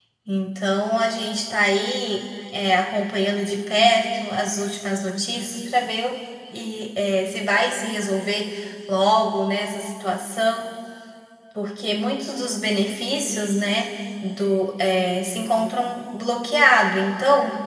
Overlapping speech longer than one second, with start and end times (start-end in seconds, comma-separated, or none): none